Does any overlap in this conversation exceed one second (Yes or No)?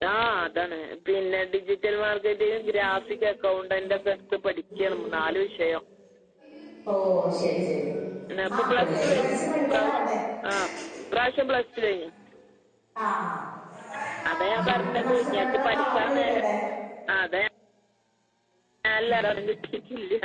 Yes